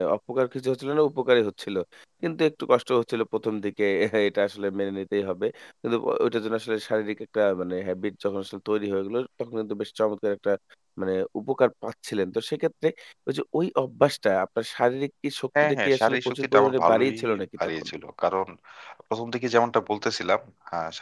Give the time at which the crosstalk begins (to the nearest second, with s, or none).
16 s